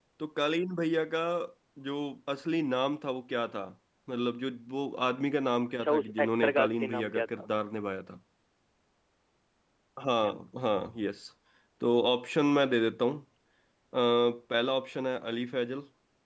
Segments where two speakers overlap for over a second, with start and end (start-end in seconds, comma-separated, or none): 5.8-7.5